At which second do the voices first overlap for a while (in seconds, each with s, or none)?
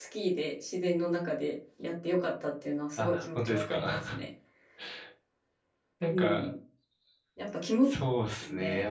3.0 s